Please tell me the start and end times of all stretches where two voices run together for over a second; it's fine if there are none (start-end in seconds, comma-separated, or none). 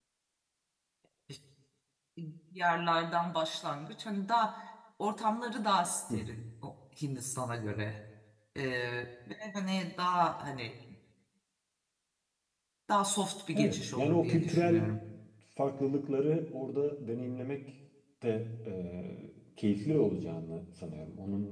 13.5-14.9